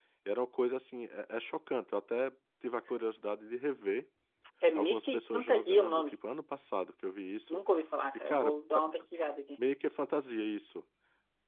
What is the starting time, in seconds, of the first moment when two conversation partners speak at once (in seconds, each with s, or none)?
4.8 s